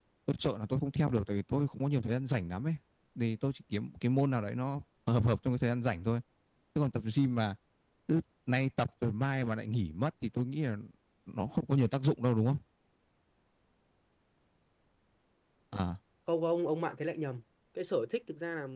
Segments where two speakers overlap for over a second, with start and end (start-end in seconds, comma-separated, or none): none